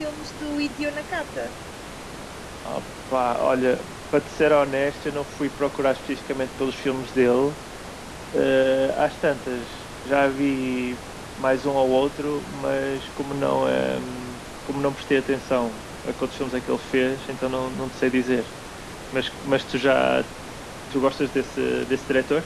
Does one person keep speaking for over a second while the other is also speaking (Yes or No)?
No